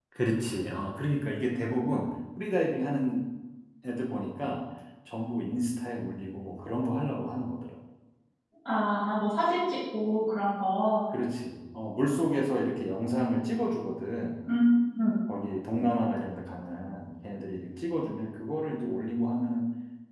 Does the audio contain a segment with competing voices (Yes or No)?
No